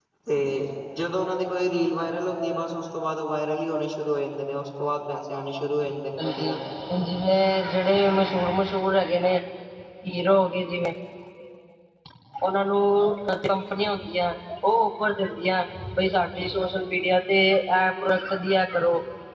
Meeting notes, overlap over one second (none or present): none